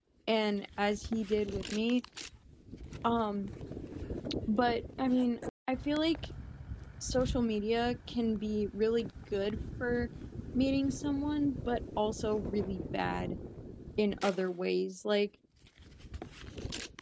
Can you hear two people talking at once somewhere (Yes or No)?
No